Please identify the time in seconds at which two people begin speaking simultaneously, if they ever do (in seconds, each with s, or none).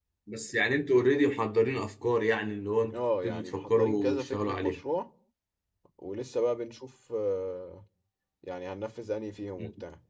2.9 s